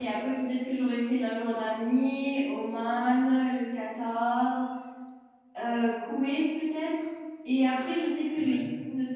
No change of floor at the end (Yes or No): Yes